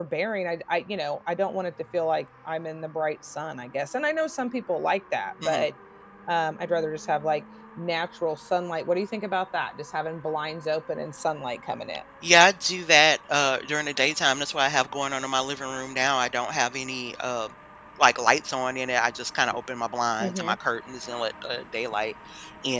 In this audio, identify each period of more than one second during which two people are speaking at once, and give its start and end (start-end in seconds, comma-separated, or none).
none